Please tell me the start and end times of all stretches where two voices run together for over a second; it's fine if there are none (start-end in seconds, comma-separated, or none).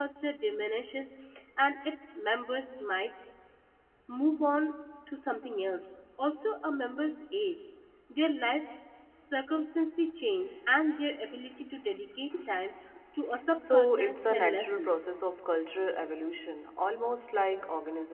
13.6-14.9